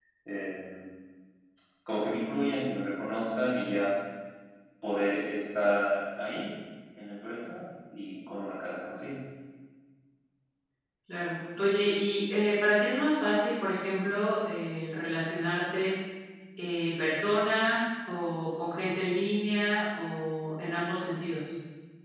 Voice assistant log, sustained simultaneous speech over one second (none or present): none